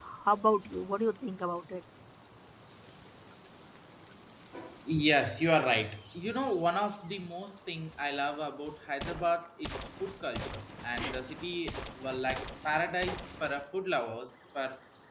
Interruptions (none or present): none